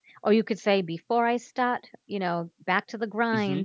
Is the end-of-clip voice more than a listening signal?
No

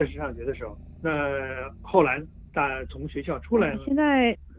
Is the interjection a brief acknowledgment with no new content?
No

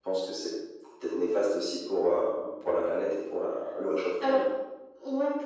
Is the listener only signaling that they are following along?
No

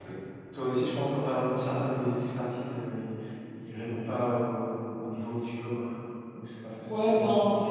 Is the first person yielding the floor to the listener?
Yes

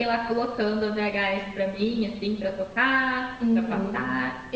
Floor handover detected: Yes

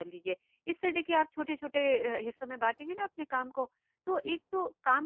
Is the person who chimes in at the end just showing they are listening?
Yes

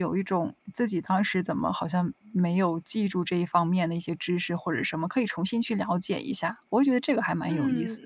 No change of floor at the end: No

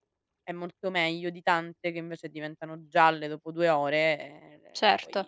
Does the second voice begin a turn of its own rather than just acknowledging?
Yes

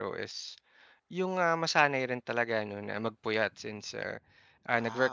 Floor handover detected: No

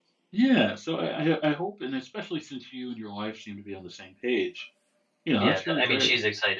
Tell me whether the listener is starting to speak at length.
Yes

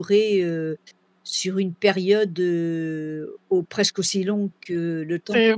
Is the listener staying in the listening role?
No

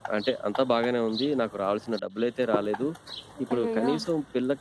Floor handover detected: No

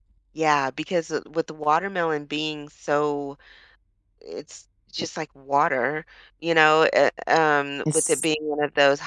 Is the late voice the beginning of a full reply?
No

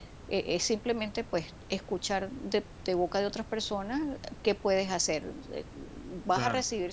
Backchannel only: Yes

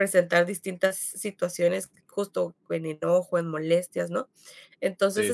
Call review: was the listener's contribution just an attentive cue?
Yes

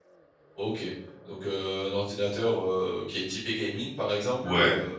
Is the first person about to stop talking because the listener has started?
No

